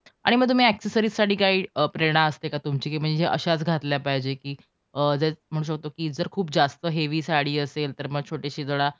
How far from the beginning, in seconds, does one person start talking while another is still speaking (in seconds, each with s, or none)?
none